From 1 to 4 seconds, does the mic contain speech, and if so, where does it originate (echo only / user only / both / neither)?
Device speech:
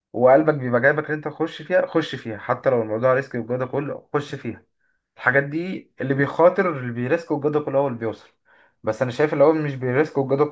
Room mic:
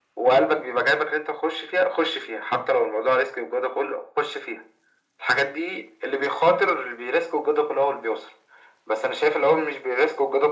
echo only